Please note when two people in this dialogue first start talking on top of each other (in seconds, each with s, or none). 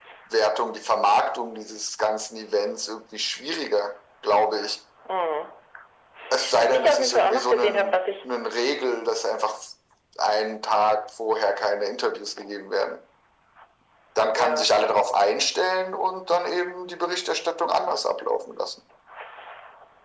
6.6 s